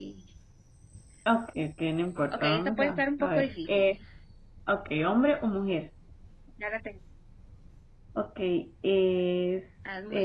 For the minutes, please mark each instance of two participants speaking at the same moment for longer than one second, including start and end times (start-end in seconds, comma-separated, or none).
2.3-4.0